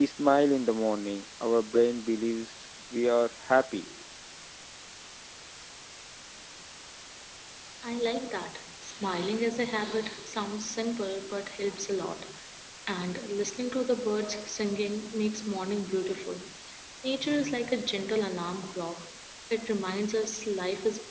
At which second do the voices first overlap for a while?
none

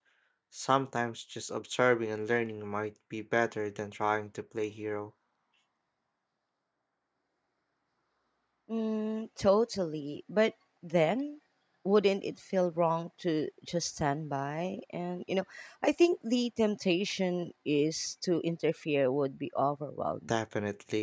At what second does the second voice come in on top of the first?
none

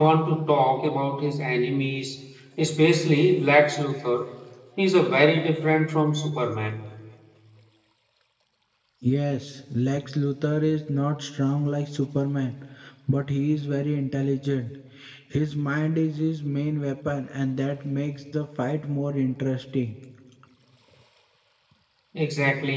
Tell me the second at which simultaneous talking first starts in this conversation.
none

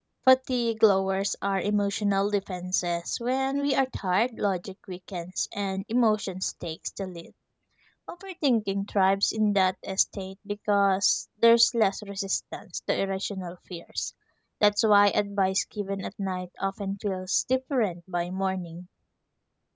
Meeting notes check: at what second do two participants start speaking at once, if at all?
none

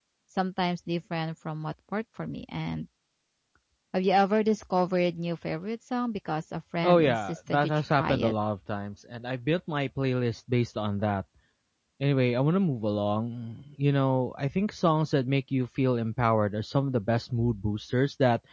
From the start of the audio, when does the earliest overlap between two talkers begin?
6.8 s

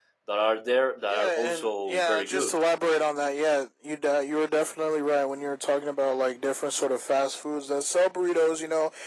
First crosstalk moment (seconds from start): 1.1 s

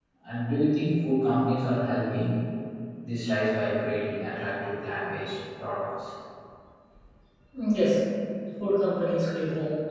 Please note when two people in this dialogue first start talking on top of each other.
none

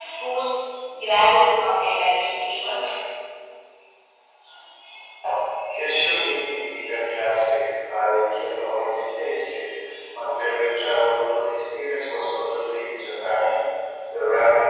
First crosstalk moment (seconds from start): none

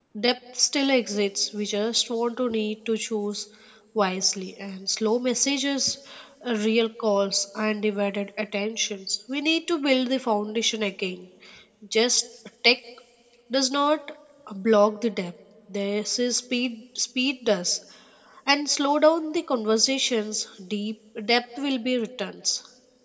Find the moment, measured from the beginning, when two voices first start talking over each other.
none

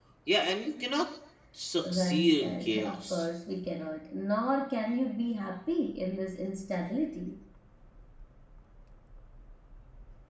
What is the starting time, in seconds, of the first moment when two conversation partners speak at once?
1.8 s

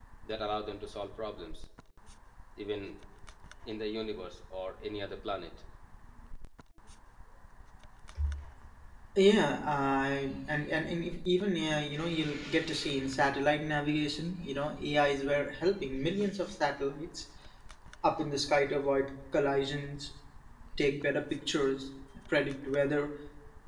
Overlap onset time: none

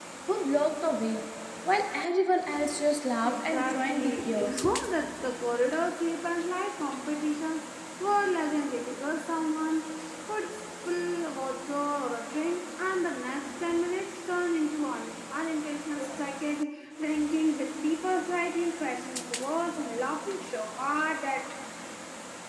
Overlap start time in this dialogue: 3.2 s

